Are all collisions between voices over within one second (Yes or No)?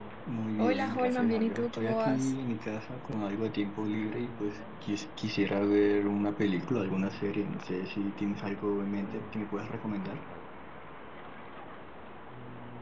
No